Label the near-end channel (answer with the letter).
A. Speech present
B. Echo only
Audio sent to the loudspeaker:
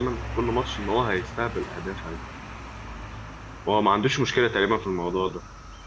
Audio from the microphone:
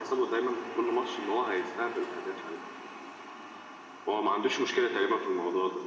B